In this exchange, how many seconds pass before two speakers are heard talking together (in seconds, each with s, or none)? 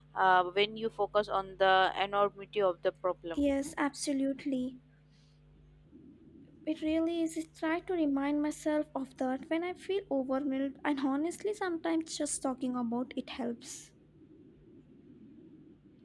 none